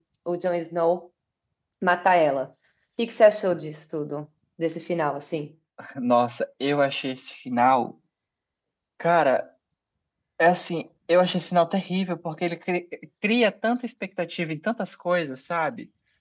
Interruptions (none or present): none